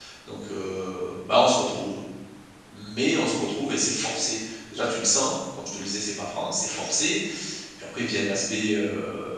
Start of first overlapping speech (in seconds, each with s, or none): none